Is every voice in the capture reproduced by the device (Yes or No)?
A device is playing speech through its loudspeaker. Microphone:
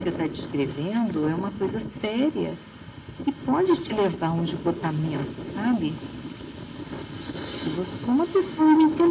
Yes